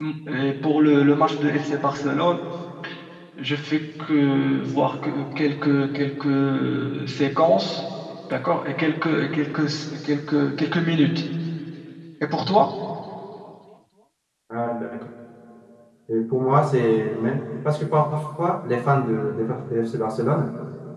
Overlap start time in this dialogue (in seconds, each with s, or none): none